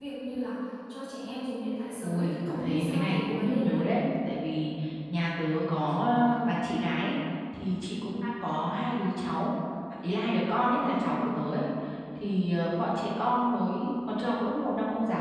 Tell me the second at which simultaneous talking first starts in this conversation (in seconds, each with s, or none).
2.0 s